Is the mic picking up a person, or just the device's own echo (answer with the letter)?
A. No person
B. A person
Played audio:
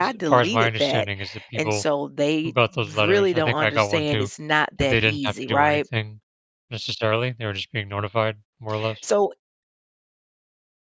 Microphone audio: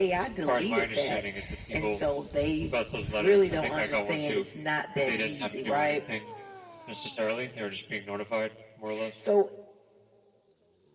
A